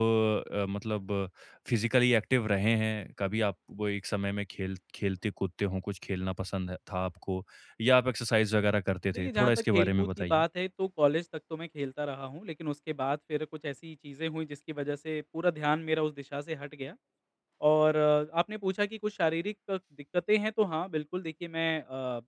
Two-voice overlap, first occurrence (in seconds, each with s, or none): 9.2 s